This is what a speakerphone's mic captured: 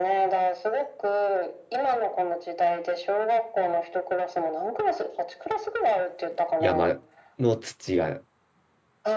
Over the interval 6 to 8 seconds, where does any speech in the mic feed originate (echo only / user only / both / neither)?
both